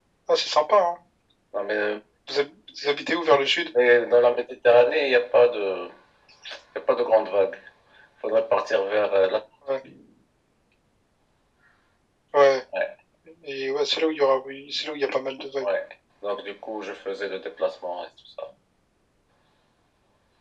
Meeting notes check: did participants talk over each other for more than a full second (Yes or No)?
No